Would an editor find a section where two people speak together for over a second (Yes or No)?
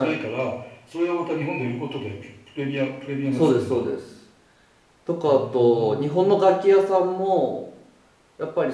Yes